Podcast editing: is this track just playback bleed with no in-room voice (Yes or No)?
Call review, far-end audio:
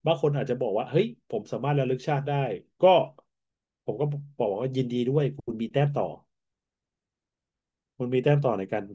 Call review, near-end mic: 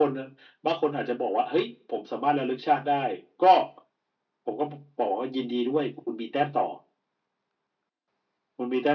Yes